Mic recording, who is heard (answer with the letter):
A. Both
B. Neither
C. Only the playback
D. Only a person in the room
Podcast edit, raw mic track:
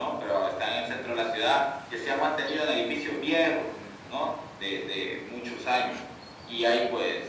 C